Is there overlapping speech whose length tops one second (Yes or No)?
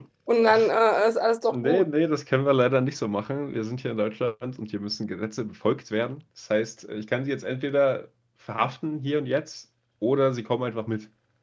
No